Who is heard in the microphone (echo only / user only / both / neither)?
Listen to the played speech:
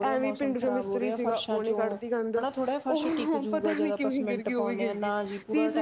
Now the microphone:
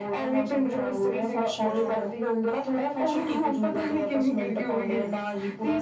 both